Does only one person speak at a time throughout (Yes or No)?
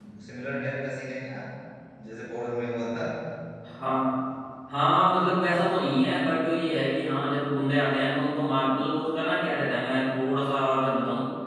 Yes